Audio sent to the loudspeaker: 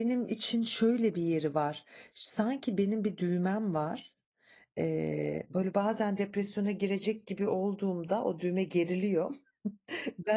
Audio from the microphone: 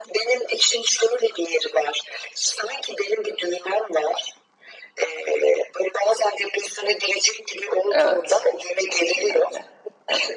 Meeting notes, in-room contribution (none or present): present